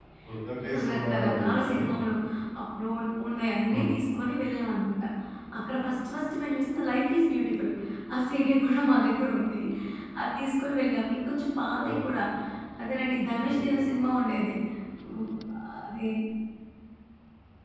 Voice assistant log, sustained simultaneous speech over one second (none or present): present